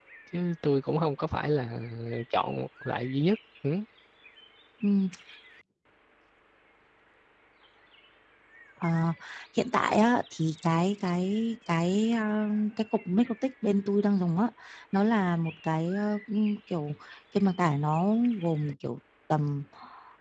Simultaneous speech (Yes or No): No